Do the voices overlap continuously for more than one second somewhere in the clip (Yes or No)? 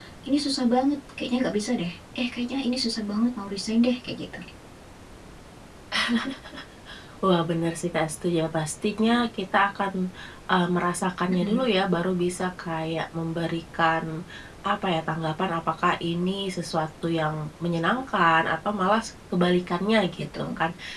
No